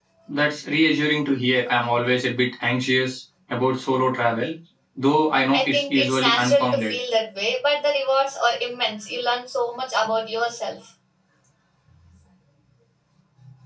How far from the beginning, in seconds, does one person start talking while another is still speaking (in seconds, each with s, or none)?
5.5 s